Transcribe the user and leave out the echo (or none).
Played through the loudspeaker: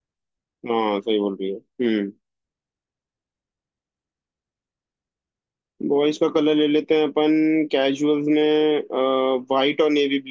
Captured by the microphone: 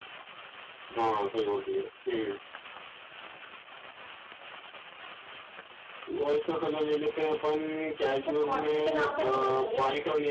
इनसे कॉन्ट्री के नाम पे नहीं लेंगे